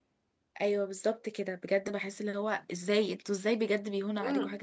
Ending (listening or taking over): taking over